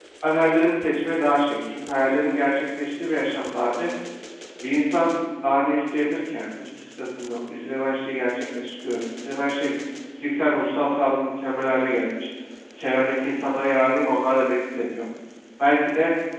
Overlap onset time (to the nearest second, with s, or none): none